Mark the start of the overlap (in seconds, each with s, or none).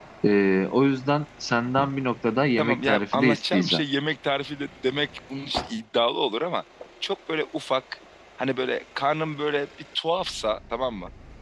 2.6 s